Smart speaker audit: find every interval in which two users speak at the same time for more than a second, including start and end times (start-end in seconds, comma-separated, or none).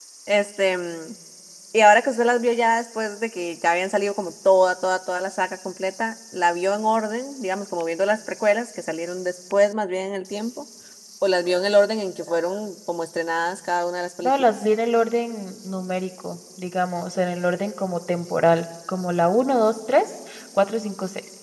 none